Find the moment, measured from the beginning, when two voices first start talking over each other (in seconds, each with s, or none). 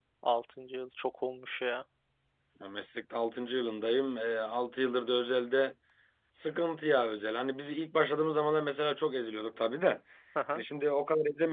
none